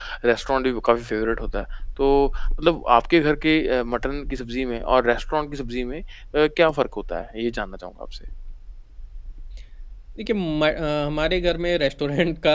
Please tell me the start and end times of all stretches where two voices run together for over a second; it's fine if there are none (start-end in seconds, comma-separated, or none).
none